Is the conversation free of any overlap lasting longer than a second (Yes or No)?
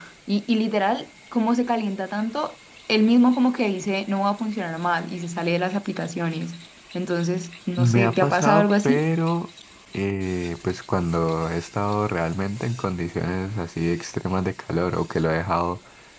No